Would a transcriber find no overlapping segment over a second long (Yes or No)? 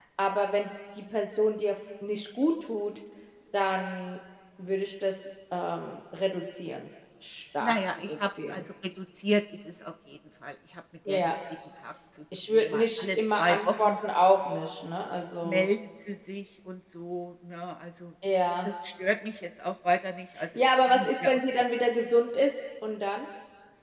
No